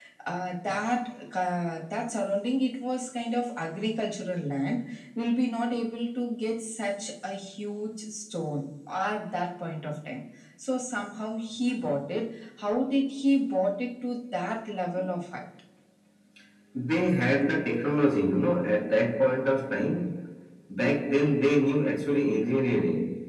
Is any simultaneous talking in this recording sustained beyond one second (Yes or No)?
No